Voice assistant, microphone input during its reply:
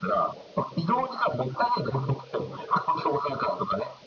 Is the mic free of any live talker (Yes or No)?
Yes